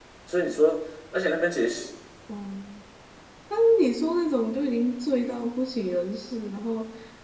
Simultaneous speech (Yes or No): No